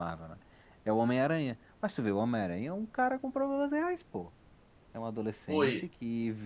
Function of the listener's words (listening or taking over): listening